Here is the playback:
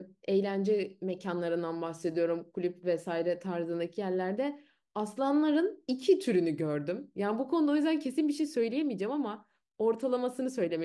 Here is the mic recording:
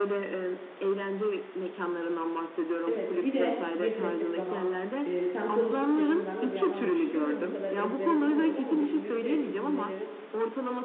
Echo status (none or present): present